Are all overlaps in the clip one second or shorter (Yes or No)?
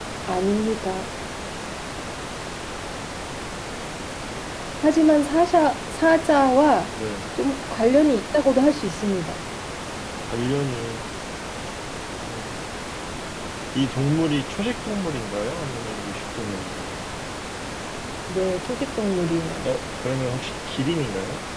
Yes